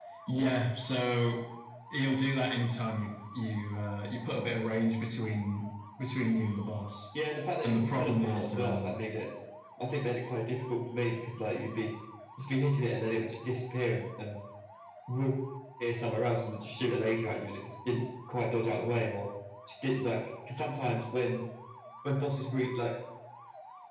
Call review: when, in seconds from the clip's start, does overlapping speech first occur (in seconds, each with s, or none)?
7.6 s